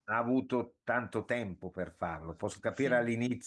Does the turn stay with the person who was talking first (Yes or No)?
Yes